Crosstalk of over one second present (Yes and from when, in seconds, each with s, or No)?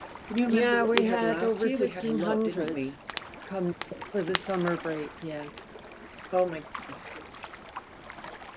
Yes, from 0.5 s